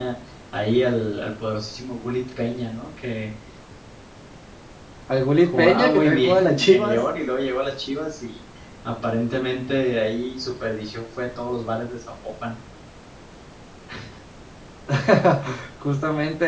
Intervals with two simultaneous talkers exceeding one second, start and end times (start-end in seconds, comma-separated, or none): 5.4-7.0